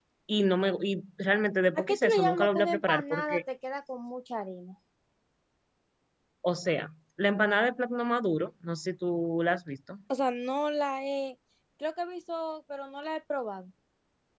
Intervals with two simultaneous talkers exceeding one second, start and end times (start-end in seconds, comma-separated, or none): 1.8-3.4